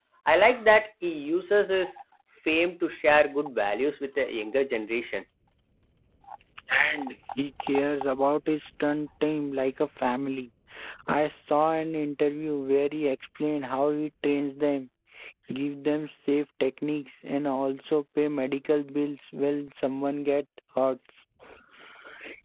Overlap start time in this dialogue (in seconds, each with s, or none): none